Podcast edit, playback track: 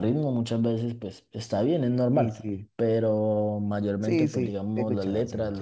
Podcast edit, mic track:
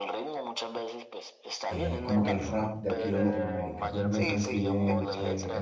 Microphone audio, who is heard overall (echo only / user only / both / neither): both